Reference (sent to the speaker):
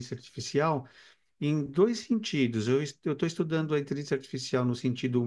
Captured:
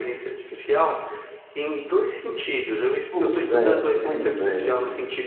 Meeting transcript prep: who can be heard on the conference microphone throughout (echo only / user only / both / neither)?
both